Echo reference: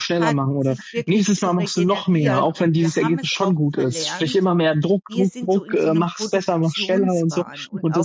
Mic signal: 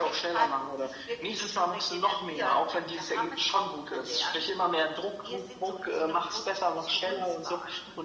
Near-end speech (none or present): none